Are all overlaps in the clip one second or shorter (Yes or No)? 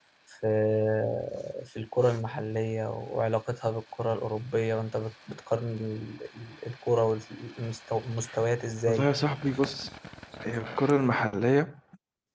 Yes